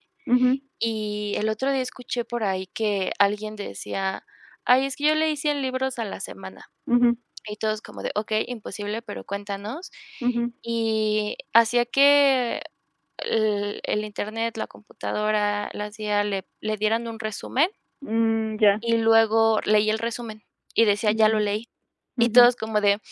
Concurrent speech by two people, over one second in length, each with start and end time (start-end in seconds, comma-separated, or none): none